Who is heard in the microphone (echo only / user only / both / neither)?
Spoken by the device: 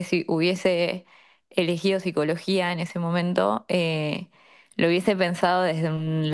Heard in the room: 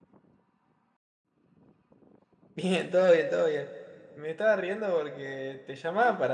user only